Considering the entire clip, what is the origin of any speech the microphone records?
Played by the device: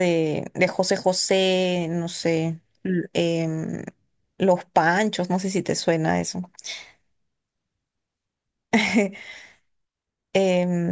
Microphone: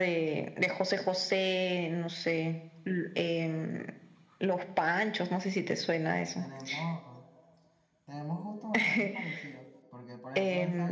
both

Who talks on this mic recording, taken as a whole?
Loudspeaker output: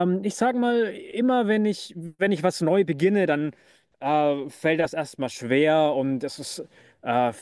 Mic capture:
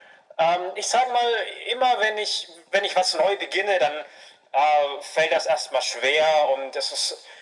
echo only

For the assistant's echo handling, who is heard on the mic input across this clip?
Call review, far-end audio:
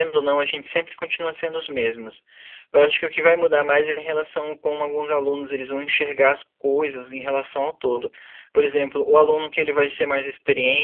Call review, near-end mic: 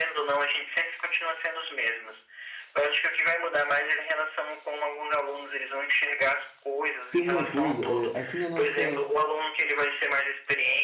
both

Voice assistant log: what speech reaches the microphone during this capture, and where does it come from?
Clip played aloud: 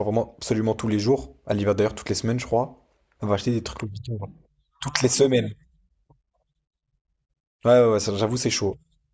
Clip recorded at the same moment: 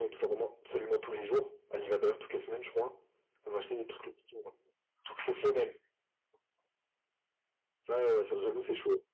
echo only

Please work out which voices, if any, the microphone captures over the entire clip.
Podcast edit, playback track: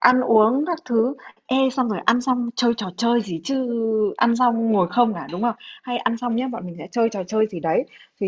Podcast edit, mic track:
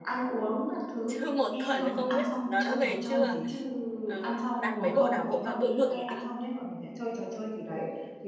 both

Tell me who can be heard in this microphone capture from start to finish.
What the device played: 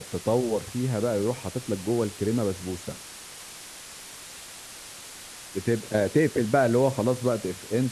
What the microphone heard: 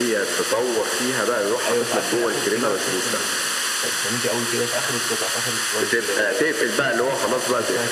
both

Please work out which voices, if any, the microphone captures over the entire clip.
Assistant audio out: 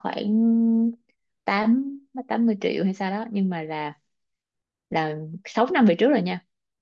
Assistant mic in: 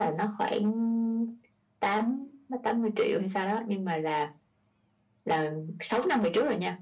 echo only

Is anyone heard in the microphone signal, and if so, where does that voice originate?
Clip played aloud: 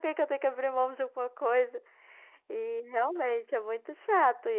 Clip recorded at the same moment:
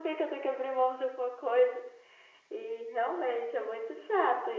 echo only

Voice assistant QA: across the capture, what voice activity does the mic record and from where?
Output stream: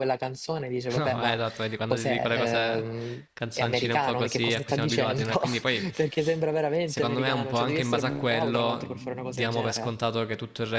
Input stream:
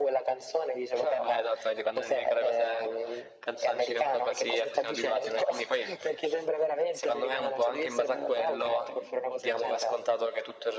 echo only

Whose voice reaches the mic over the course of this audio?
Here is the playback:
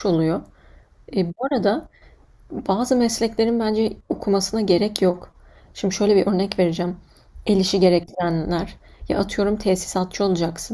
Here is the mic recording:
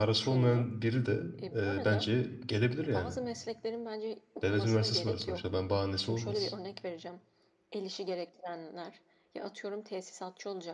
both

